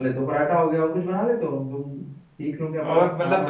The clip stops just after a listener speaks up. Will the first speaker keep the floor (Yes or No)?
No